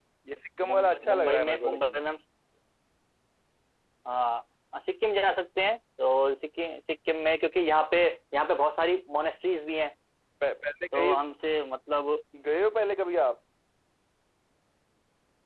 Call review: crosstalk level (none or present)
present